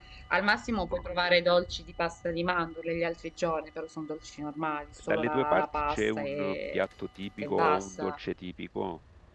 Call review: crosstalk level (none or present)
present